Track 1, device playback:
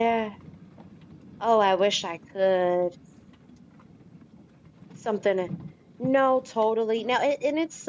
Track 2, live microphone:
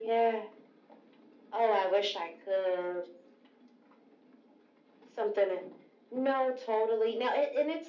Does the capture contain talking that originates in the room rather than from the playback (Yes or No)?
No